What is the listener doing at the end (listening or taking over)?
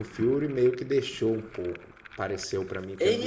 taking over